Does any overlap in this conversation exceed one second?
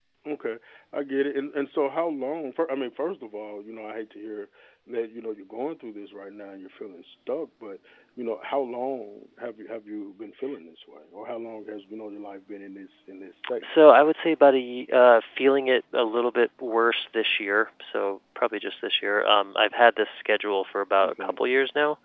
No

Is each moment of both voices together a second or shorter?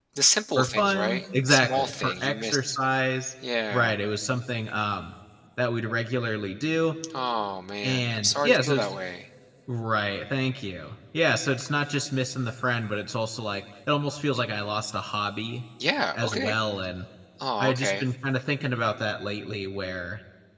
No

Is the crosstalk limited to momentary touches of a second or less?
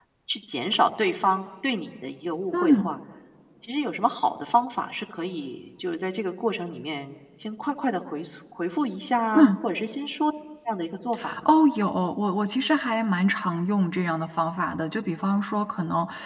Yes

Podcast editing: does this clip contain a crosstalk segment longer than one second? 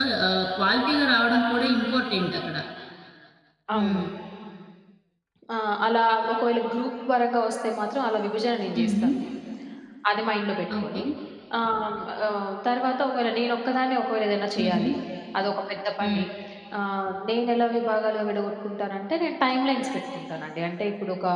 No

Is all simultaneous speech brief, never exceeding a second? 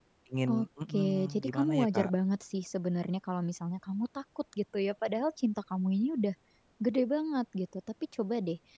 No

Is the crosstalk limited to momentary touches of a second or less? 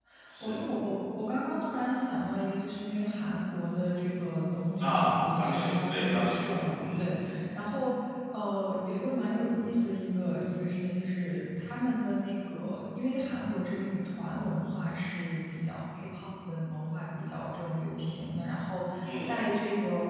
No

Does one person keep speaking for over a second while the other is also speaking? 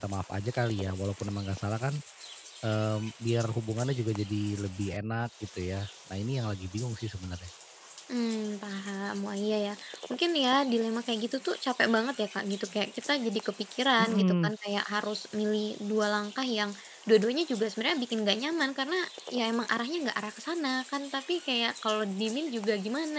No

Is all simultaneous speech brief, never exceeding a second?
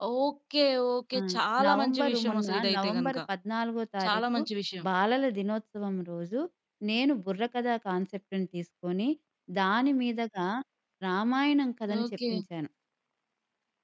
No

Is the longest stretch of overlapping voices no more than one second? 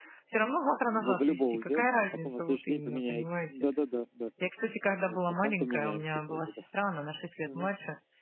No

